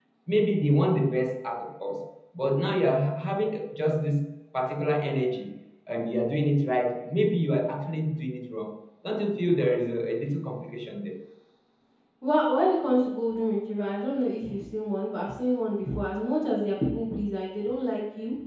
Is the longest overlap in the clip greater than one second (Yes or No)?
No